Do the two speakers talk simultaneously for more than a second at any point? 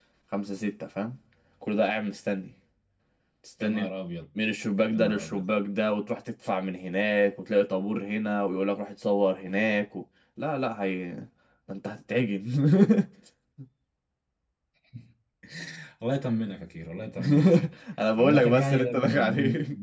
Yes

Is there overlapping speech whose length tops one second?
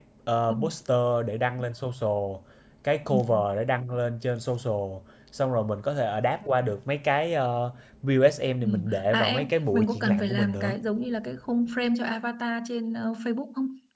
Yes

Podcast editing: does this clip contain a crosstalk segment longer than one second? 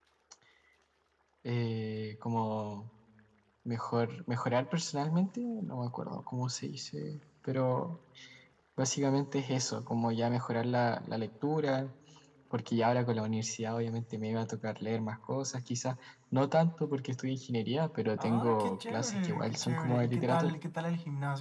Yes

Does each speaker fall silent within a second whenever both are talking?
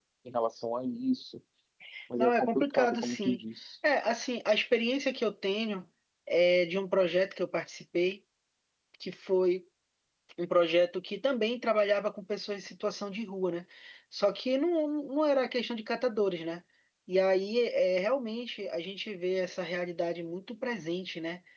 No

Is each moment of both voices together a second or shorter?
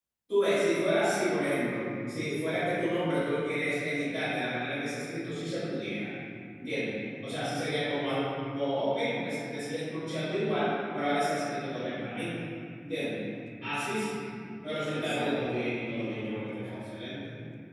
No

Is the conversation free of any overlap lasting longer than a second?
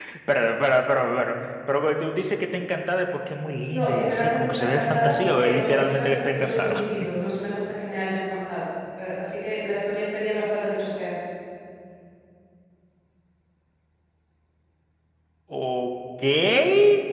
No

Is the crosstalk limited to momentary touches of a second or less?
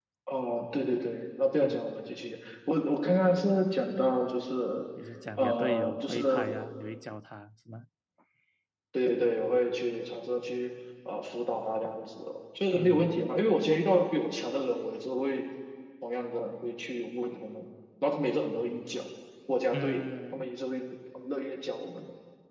No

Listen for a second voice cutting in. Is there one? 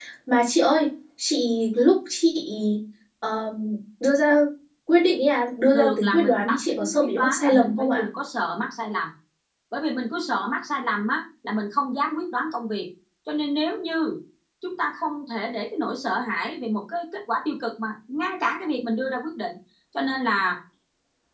Yes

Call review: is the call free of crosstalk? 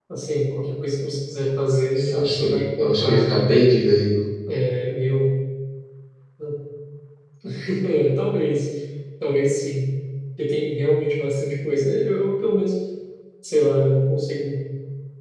No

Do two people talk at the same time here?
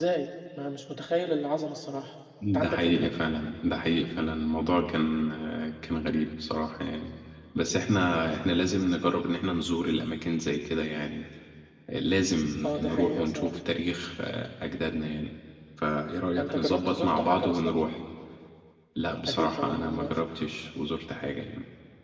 Yes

